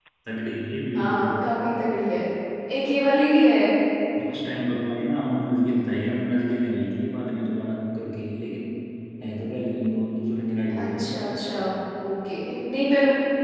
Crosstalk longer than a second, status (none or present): none